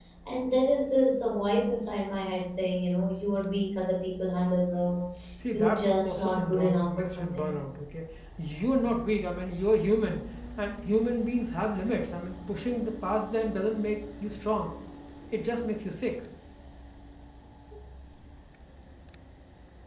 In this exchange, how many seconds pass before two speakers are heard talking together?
5.5 s

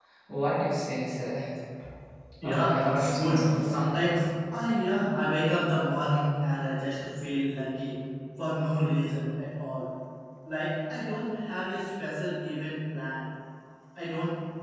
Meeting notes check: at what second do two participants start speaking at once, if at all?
2.4 s

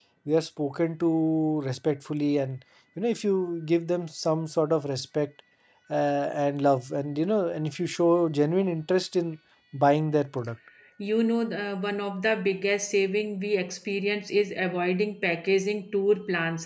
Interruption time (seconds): none

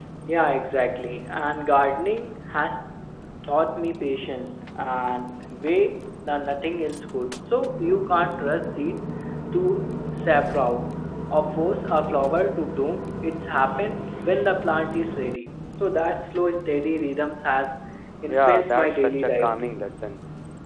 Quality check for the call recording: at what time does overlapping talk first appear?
18.3 s

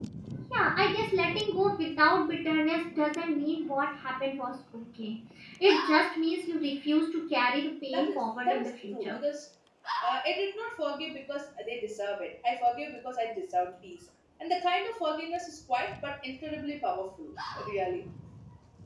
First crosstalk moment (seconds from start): 7.9 s

